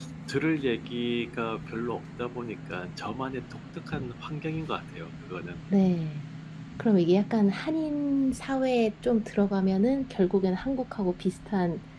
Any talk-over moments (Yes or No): No